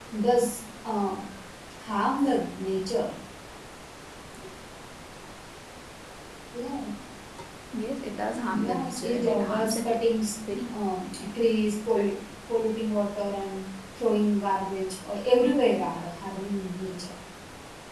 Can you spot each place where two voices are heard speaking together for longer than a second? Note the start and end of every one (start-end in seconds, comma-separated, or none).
8.6-9.9